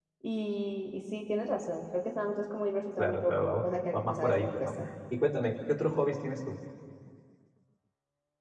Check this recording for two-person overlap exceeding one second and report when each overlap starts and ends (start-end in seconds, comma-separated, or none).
3.0-4.7